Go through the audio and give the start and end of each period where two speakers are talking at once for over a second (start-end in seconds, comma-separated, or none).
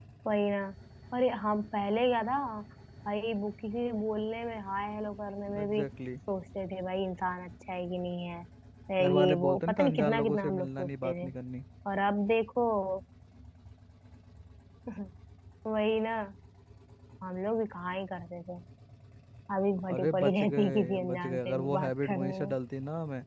9.0-11.3, 19.9-22.6